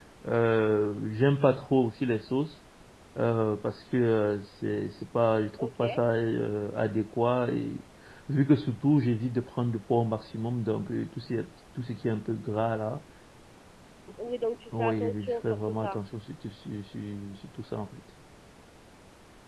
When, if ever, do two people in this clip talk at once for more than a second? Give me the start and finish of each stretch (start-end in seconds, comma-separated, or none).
14.7-16.0